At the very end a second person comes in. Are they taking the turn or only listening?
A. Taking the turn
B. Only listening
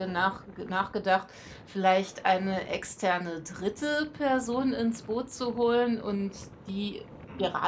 B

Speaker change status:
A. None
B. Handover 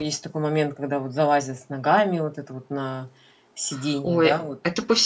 B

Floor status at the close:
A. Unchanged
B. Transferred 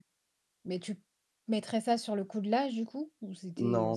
B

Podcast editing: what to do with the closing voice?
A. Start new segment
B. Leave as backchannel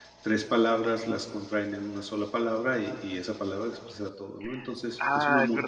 A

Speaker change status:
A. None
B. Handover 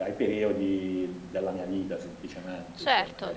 B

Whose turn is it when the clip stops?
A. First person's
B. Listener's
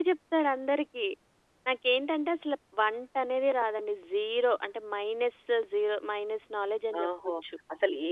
B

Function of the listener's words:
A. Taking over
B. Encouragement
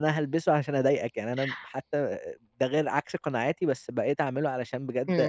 A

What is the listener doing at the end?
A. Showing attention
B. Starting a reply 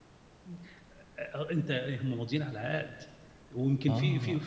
A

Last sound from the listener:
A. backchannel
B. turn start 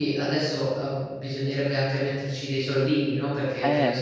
A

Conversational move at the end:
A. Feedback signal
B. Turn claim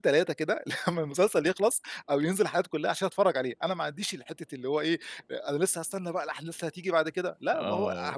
B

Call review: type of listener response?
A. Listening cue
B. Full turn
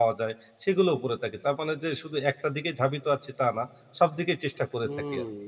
B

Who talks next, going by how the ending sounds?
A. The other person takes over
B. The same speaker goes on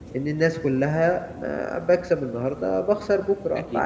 A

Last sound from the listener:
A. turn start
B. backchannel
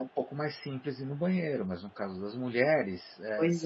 B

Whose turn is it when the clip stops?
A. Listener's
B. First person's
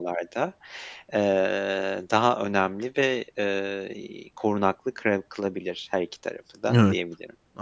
A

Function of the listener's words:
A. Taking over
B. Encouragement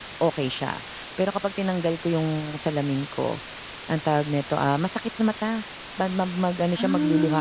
B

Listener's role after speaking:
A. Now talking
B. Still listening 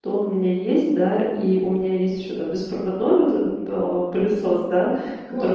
B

